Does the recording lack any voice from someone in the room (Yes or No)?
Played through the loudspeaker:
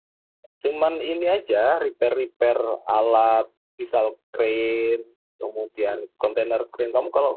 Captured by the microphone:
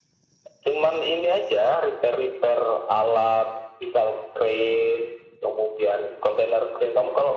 Yes